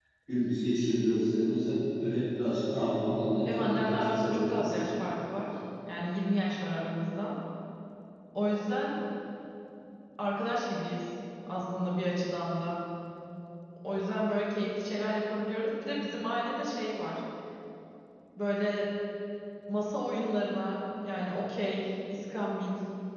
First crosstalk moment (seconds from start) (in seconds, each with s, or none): 3.5 s